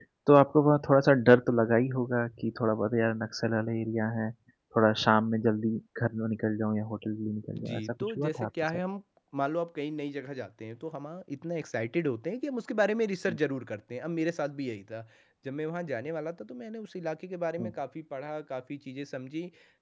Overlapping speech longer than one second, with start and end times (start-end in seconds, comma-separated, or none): 7.6-8.8